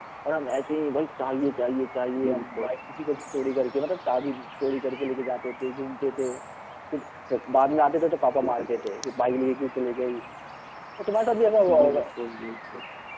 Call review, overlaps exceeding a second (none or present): none